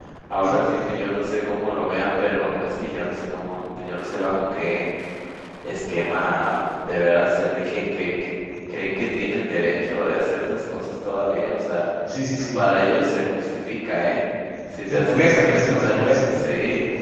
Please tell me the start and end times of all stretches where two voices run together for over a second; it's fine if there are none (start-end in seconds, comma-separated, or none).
14.9-16.4